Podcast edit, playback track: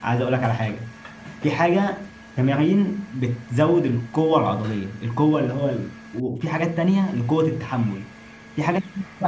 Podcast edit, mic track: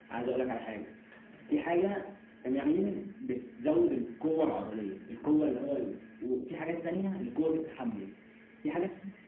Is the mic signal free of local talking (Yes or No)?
Yes